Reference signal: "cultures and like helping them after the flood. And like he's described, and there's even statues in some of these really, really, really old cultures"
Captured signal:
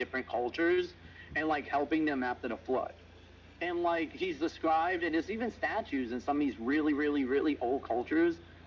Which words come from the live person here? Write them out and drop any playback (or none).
none